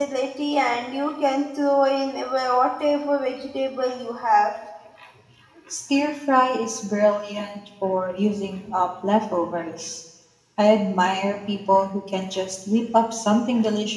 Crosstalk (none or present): none